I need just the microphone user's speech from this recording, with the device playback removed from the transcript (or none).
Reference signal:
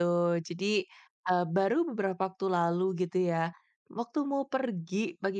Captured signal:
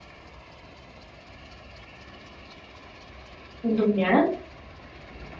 Untungnya